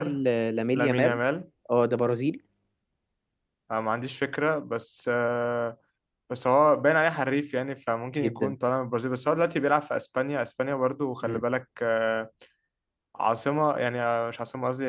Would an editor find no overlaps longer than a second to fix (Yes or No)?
Yes